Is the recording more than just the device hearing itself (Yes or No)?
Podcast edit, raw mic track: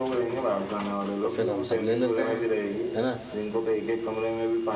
Yes